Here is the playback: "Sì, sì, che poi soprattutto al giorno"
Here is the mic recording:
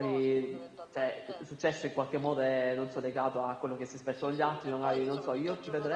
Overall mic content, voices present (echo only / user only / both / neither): both